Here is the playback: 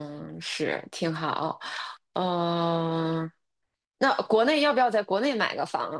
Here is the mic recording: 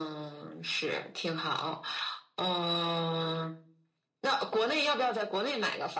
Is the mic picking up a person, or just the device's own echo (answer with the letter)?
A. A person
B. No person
B